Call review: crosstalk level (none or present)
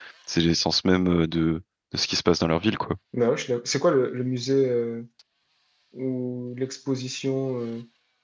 none